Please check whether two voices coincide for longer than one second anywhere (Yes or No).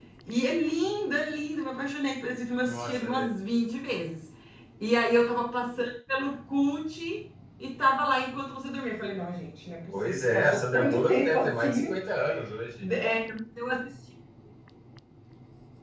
Yes